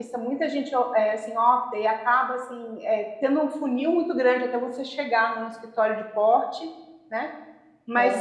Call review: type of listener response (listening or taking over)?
listening